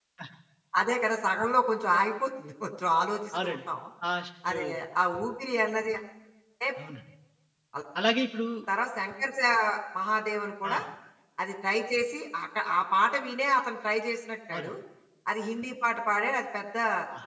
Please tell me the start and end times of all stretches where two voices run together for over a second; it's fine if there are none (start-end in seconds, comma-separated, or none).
none